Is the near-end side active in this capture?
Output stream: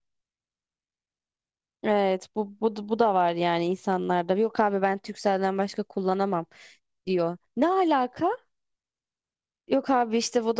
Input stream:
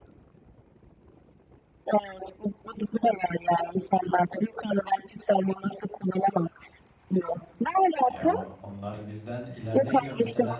Yes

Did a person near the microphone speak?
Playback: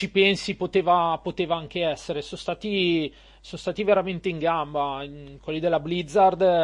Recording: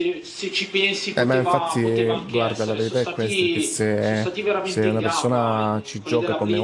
Yes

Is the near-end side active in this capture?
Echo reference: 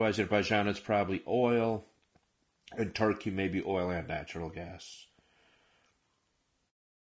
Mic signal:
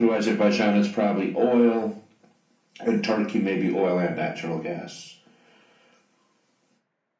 No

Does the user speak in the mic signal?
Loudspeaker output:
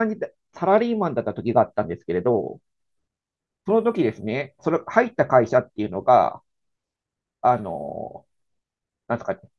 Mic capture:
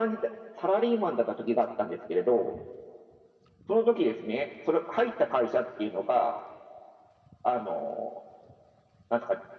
No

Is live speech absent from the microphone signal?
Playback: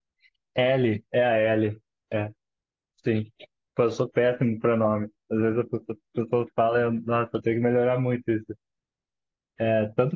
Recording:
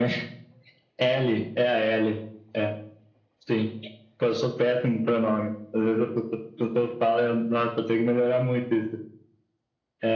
Yes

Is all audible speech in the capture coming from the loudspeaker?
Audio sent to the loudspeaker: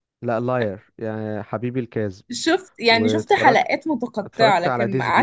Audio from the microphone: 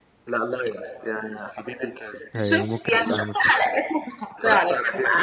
No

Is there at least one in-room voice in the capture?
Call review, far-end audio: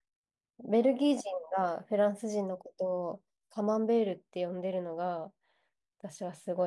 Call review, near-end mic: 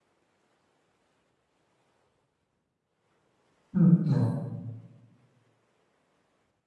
Yes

